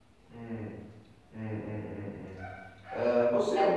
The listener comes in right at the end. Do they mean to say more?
No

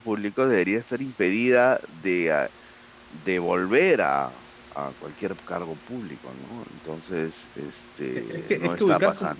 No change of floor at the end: No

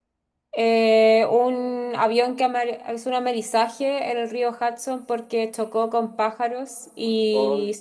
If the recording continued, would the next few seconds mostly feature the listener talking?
No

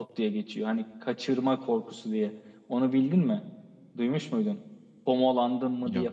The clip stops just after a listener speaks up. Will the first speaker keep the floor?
Yes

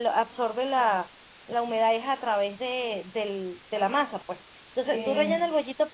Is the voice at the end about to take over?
No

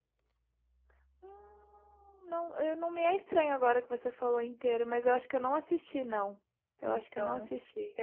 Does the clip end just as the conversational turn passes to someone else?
Yes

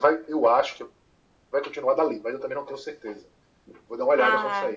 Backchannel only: No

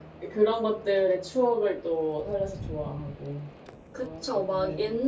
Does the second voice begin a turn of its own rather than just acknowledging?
Yes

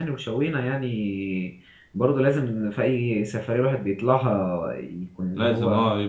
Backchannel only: No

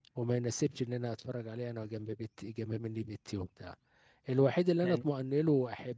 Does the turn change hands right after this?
No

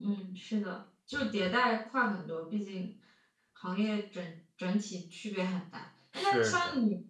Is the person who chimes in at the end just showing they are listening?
Yes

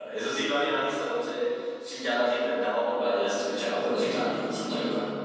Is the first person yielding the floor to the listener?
Yes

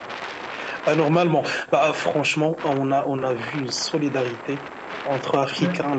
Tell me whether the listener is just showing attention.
Yes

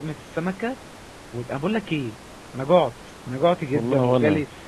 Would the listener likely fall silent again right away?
Yes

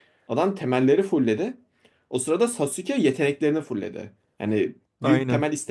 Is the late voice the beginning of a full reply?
No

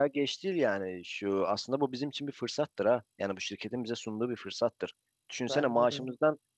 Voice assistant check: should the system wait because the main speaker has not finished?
Yes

